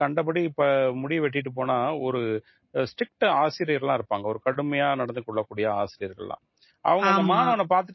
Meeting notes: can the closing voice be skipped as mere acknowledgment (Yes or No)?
Yes